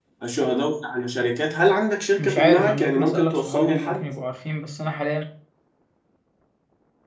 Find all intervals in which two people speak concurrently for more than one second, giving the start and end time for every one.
2.2-4.0

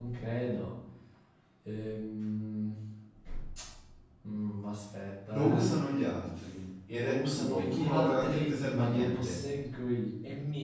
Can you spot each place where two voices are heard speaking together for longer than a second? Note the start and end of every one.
6.9-9.4

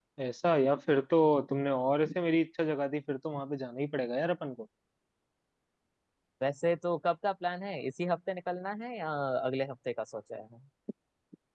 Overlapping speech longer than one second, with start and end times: none

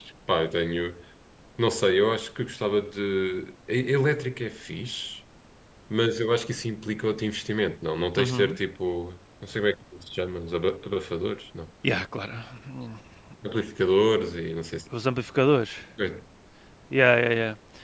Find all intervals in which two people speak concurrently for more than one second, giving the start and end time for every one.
none

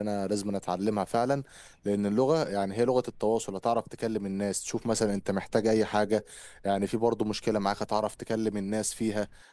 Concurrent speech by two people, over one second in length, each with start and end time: none

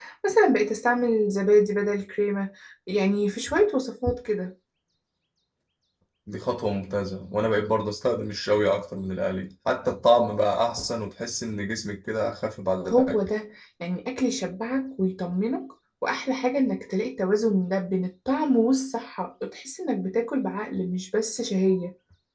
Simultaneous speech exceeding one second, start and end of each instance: none

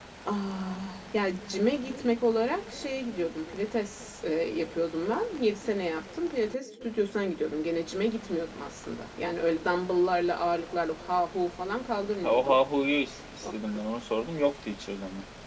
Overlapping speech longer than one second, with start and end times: none

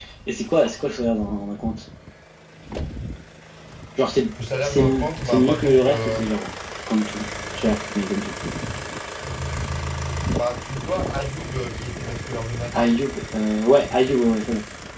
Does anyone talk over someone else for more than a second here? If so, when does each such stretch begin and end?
4.6-6.2

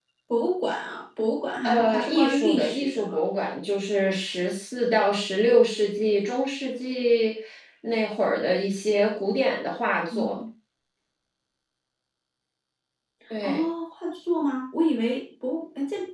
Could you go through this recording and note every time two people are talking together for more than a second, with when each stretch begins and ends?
1.6-3.2

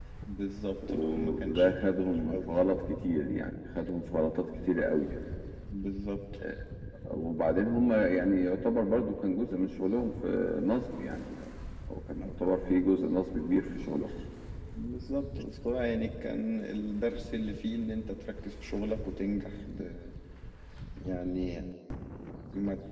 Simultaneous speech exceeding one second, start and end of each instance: 0.9-2.7

